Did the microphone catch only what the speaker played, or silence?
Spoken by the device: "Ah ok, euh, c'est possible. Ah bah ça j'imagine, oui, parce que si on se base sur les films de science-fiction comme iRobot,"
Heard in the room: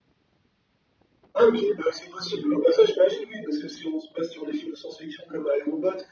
Yes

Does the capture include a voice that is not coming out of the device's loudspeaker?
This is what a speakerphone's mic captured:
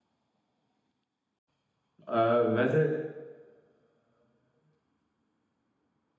Yes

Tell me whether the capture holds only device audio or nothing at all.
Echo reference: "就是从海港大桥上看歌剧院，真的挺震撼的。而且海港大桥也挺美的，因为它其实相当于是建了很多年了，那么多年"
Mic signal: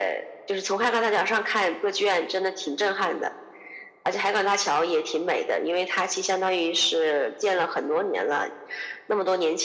Yes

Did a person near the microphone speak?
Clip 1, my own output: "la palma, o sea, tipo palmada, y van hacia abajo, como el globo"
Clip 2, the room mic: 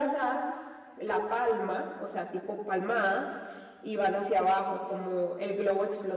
No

